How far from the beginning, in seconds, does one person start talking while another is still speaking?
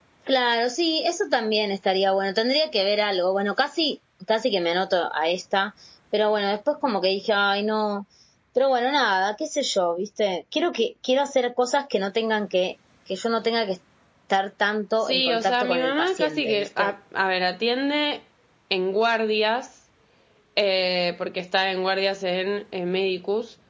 15.0 s

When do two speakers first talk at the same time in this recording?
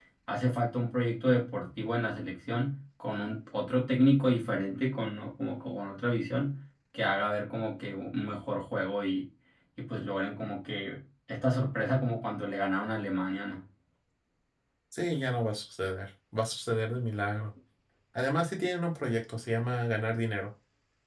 none

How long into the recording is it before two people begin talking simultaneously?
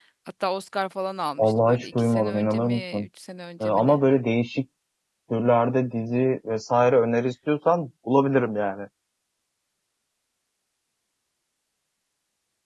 1.4 s

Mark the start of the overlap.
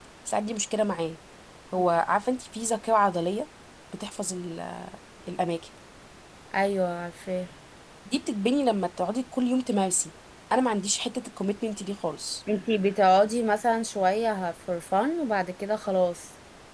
none

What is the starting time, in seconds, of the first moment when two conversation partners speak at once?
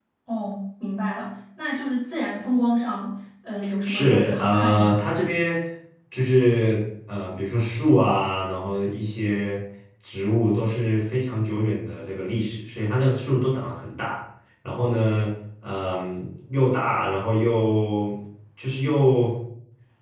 3.8 s

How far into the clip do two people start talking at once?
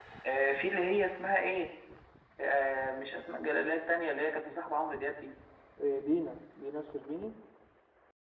none

